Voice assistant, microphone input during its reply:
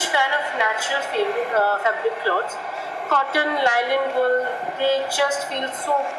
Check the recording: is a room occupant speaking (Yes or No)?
No